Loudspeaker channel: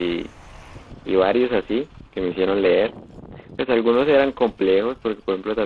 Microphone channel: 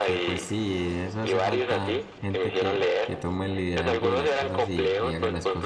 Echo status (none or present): present